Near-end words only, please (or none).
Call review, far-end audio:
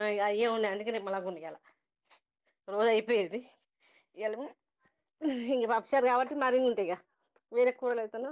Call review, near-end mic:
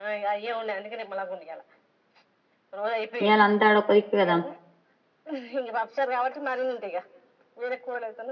ఇయ్యలా అంతా అడ ఒక్కదిక్కే కదా